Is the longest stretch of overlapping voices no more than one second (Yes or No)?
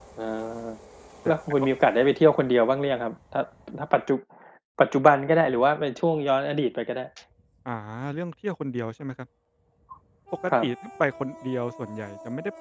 Yes